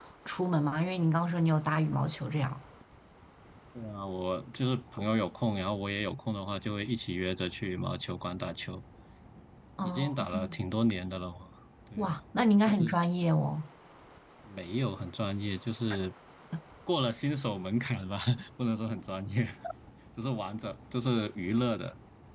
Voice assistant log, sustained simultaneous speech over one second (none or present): none